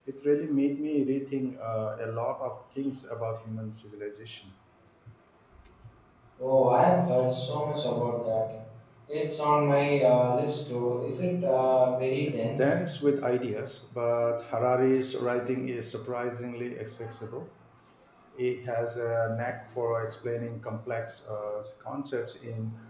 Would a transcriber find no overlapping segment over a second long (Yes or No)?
Yes